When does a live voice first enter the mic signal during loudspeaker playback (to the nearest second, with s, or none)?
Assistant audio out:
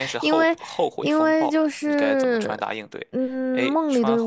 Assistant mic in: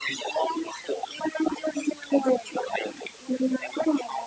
none